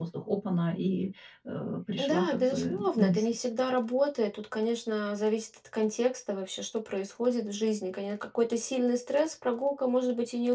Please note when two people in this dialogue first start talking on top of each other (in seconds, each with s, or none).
1.9 s